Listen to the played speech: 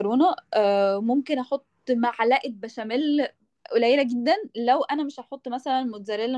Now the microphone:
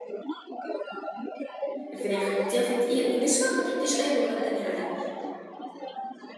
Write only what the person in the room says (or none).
الفراخ حطيها في دقيق ونشا ما تحطيش اي بهارات تانية عليه